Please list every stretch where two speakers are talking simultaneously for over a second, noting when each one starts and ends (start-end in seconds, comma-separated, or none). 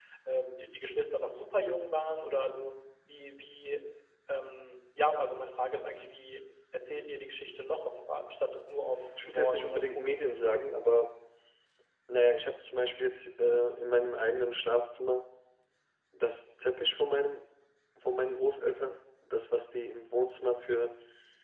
9.2-10.6